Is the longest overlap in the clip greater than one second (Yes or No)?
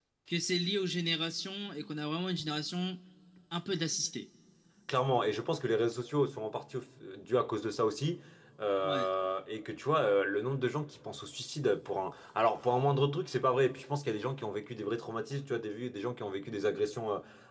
No